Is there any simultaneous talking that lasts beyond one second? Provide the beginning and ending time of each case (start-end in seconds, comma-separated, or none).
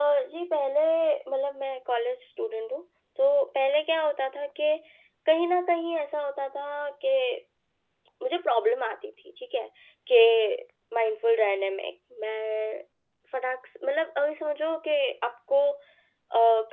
none